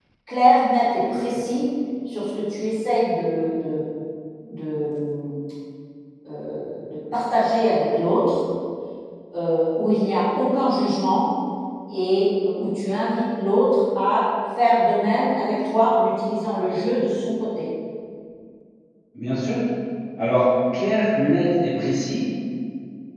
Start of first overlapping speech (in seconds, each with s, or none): none